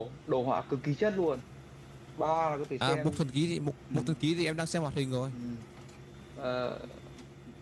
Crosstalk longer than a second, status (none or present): none